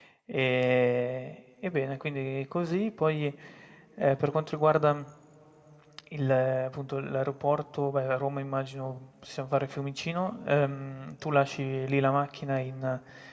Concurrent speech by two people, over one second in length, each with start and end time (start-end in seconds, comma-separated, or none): none